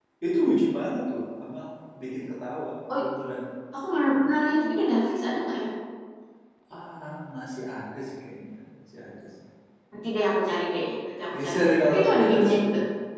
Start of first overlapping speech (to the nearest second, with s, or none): 11 s